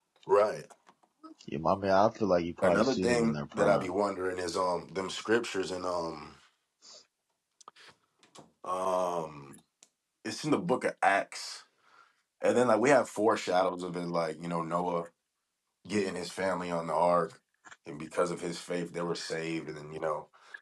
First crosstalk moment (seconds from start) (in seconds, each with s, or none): 2.6 s